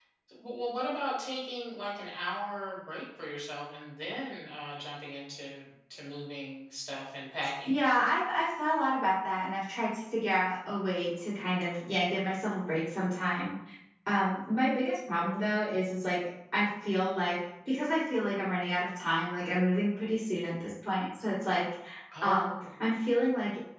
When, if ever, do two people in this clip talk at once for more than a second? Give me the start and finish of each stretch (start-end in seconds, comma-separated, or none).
none